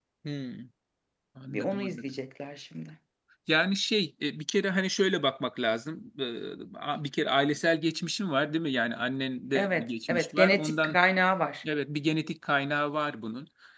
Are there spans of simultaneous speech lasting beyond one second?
Yes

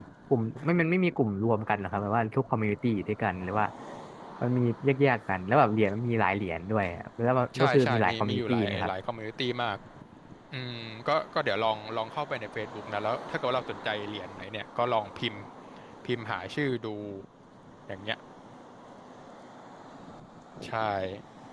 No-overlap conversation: No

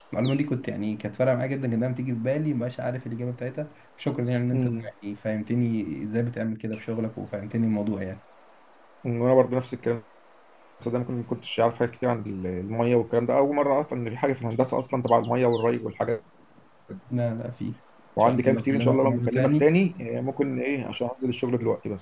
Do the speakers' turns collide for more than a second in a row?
Yes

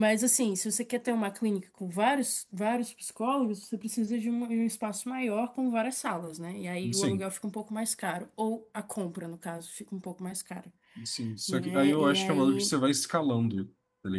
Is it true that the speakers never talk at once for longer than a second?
No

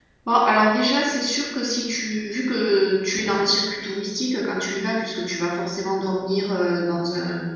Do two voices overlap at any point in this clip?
No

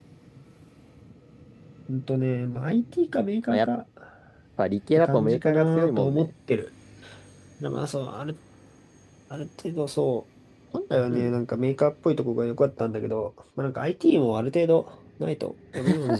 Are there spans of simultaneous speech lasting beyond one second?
Yes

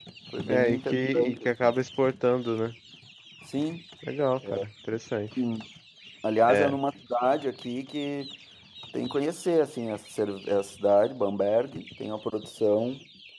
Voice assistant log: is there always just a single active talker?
No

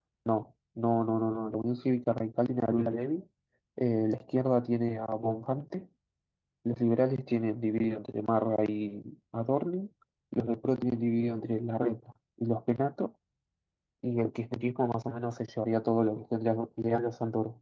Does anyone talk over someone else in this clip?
No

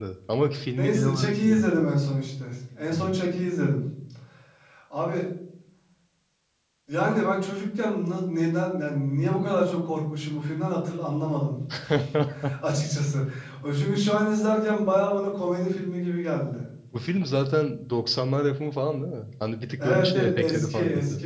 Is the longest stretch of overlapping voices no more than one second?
No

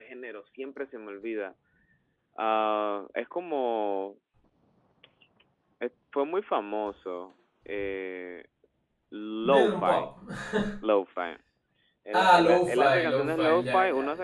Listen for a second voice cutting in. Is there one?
Yes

